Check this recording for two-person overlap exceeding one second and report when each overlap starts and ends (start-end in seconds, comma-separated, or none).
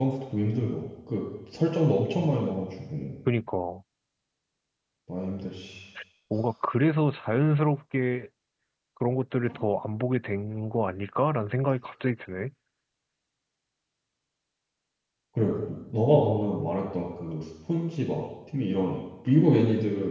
none